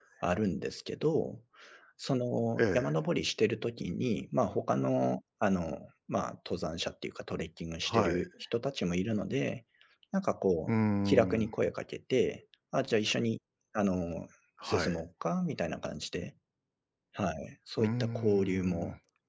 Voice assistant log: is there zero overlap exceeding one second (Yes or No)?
No